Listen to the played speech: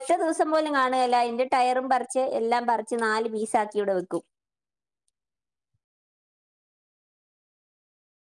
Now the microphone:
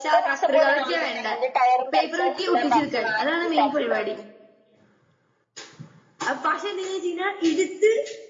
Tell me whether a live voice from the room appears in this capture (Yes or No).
Yes